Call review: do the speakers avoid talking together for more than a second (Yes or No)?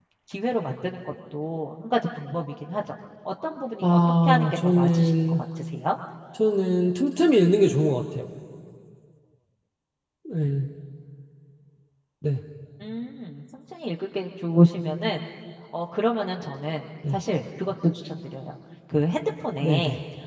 No